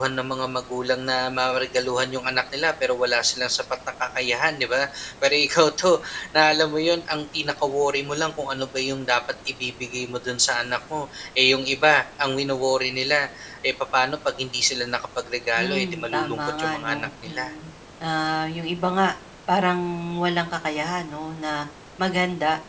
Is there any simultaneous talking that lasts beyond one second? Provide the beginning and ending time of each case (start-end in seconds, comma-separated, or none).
15.6-17.4